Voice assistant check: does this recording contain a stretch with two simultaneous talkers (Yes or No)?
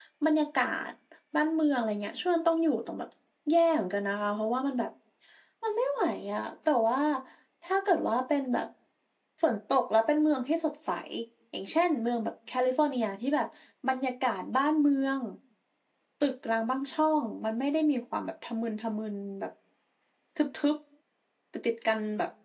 No